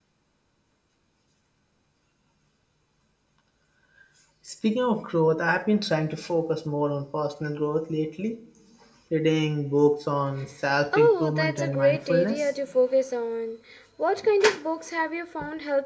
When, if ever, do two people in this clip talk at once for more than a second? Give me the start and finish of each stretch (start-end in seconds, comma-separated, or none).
11.0-12.4